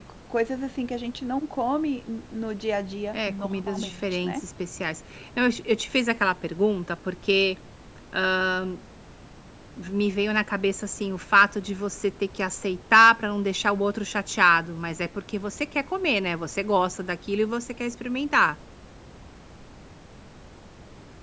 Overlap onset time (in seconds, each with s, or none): 3.1 s